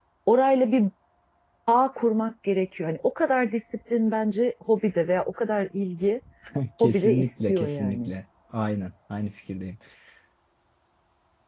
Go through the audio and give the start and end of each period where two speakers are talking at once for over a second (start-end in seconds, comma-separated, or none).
6.8-8.1